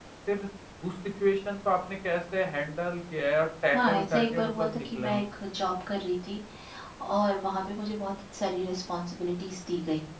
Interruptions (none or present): present